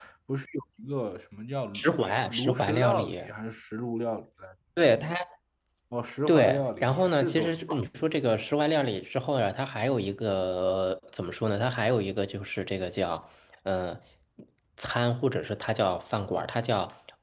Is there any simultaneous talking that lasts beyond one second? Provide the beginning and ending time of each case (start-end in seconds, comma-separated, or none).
1.7-3.2, 6.3-7.8